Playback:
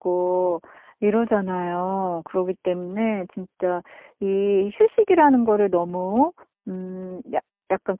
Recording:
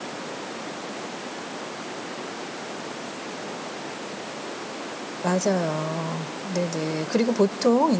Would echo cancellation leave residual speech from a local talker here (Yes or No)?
Yes